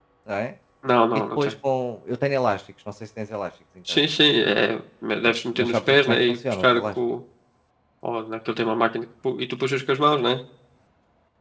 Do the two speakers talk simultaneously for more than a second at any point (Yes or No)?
Yes